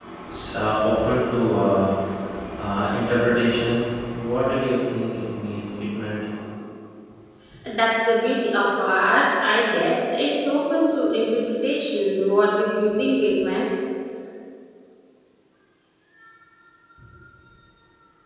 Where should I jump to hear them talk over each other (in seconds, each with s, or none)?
none